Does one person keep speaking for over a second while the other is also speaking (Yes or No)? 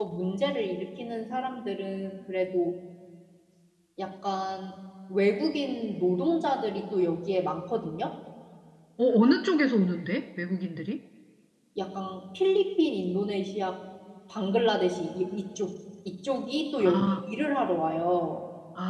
No